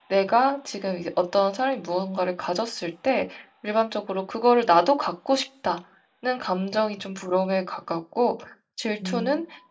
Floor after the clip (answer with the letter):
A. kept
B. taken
A